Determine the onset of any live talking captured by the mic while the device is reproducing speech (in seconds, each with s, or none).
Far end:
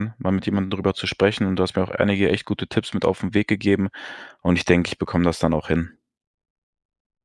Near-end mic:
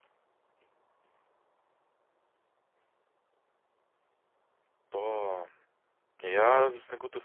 4.9 s